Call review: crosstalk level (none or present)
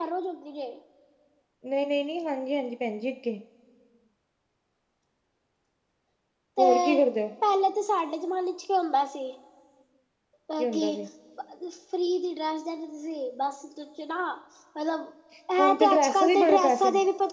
present